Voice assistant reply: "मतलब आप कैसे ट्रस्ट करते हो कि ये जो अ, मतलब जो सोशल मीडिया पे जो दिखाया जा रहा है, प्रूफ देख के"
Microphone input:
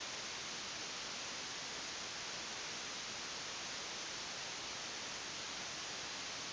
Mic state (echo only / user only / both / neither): neither